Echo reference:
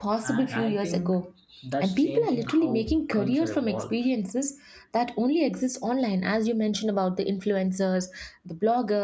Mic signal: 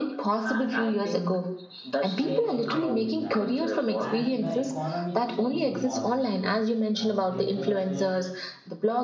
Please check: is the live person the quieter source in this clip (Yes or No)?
Yes